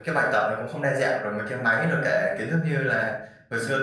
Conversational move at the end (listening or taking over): listening